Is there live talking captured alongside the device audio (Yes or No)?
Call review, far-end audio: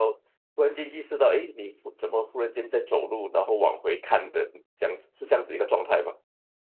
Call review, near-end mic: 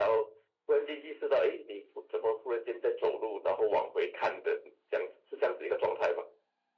No